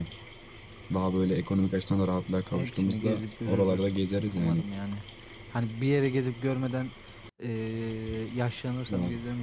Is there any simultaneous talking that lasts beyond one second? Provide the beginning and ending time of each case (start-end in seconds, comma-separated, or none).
2.5-3.9